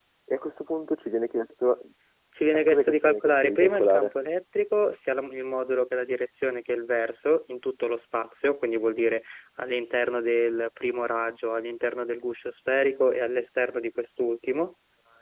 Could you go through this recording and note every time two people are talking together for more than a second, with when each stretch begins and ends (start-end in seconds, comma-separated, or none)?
2.5-4.1